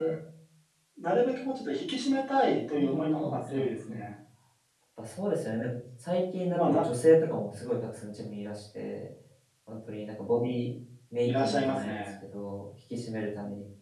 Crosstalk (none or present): present